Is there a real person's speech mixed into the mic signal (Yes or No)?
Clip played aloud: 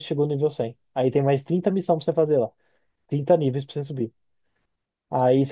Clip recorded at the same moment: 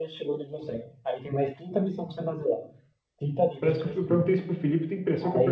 Yes